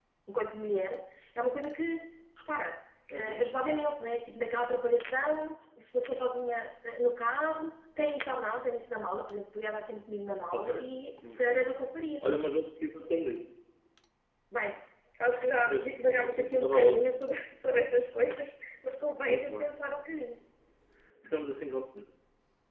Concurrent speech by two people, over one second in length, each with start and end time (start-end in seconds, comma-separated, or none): 15.6-17.2